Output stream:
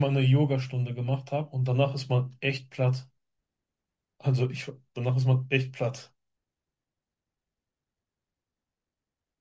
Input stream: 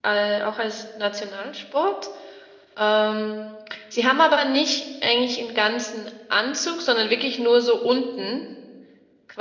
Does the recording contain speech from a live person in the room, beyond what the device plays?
Yes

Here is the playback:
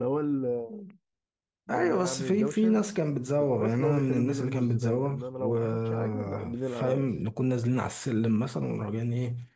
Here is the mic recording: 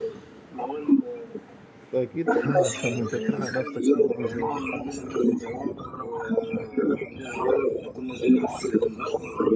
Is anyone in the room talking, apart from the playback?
Yes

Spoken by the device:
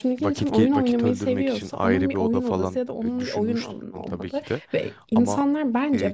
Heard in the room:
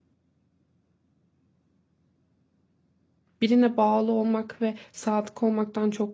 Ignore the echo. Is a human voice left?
Yes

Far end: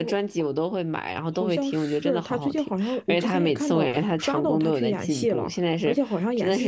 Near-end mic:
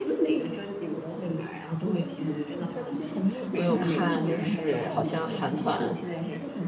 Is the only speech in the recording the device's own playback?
No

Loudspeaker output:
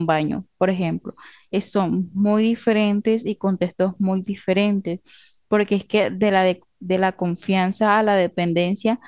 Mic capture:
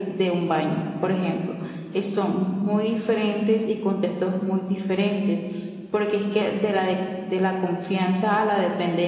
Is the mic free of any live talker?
Yes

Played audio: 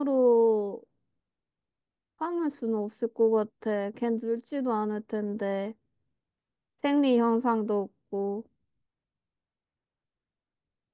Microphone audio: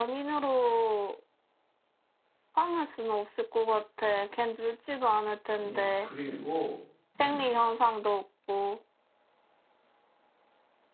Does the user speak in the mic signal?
Yes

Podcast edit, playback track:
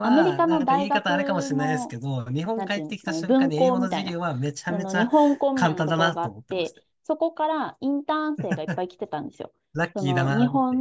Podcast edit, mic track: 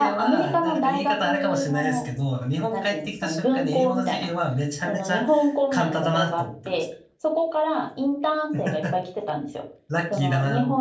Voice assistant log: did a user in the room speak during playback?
No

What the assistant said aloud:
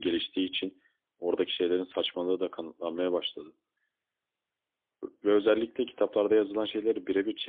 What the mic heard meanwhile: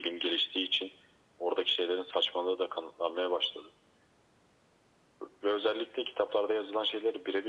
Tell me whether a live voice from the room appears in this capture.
No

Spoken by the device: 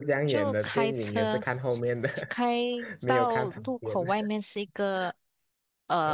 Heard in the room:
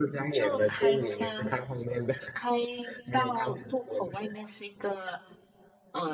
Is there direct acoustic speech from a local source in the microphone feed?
No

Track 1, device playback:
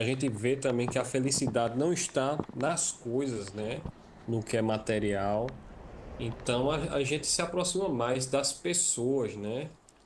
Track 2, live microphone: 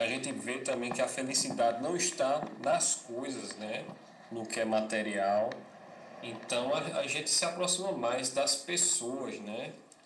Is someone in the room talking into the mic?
No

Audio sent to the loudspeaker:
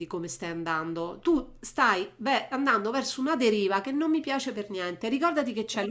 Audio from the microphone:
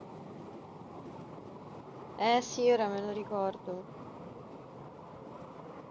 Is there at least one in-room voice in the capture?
Yes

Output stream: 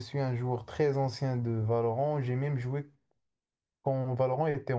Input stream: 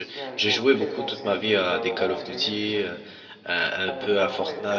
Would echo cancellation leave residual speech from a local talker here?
Yes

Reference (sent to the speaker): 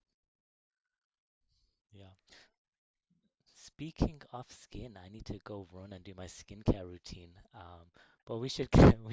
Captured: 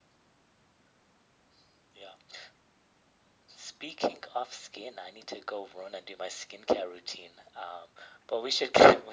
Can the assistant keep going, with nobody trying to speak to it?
Yes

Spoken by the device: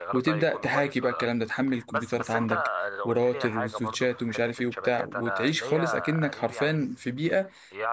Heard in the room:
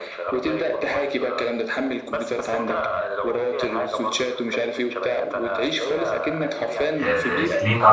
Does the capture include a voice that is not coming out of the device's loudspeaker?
Yes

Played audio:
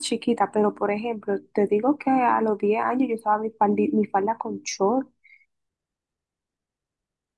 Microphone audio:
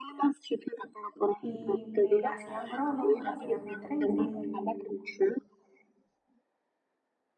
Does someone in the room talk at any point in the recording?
Yes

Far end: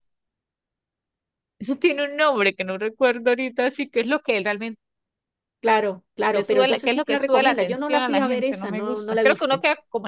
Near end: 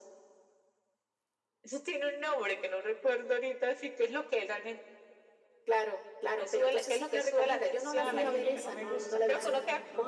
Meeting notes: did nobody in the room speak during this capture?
No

